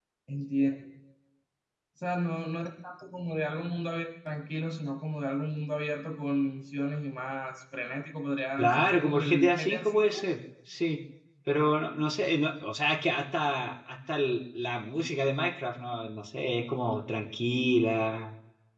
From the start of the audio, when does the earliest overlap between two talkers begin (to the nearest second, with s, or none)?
9 s